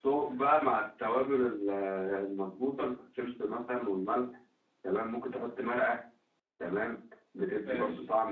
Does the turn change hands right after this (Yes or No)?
No